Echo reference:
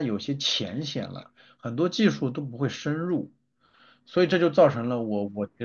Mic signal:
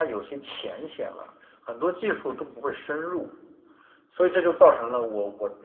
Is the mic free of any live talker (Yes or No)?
Yes